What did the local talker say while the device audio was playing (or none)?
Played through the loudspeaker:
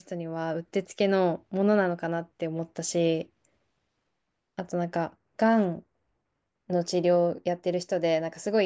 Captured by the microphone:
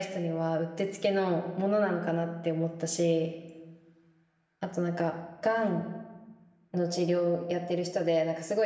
none